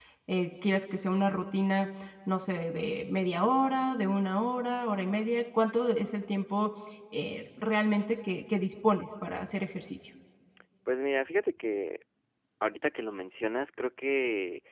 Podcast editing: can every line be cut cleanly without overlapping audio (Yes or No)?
Yes